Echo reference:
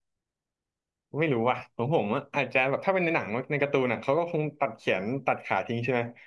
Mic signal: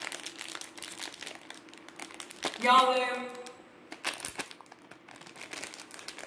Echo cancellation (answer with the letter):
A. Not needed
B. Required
A